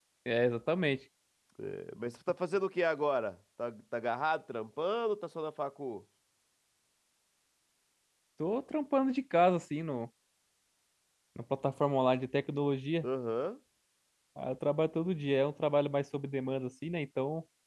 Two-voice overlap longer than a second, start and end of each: none

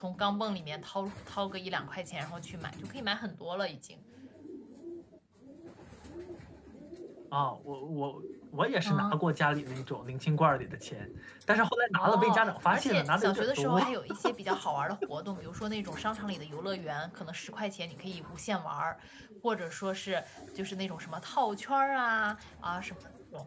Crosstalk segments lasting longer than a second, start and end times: 11.9-13.8

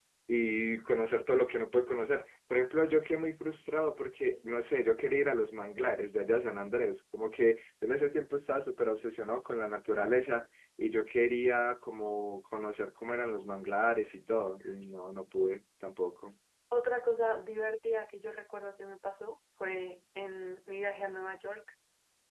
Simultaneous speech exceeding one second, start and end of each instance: none

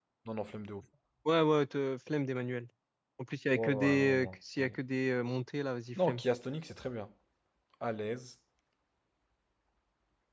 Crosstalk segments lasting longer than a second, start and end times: 3.5-4.8

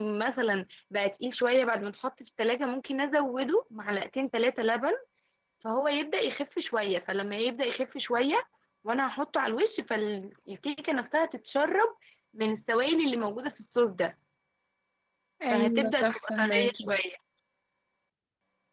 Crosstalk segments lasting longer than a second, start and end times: 15.5-16.9

